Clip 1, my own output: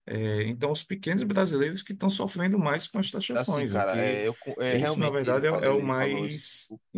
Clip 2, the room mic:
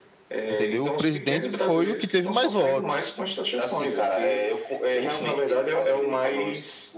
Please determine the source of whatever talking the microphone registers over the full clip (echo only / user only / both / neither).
both